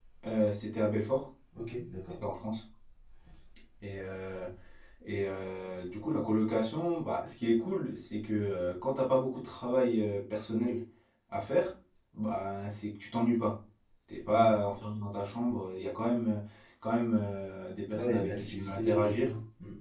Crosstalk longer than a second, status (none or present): present